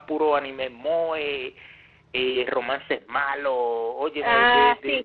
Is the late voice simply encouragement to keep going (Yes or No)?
Yes